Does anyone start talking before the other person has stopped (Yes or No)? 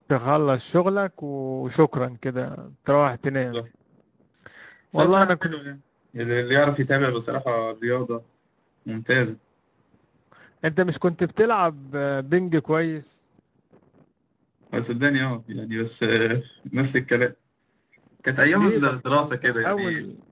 Yes